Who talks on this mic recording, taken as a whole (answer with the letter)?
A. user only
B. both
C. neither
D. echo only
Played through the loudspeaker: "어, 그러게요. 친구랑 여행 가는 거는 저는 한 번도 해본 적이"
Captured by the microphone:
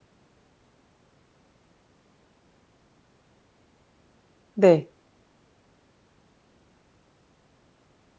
A